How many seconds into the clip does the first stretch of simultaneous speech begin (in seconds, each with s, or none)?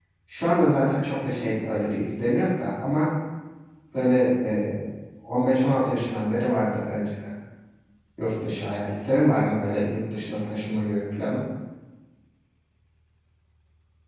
none